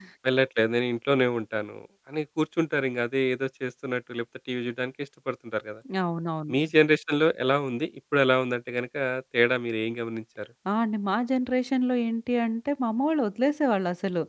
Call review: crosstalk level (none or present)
none